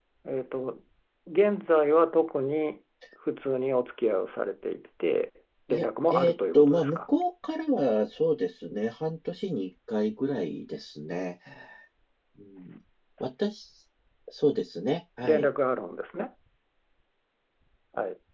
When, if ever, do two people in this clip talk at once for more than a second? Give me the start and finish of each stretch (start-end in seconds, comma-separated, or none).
5.7-7.0